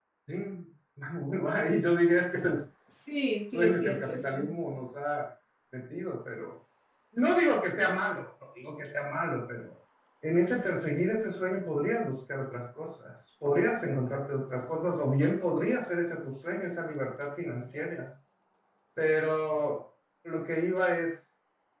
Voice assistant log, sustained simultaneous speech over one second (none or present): present